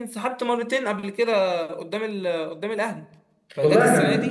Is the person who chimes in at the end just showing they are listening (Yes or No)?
No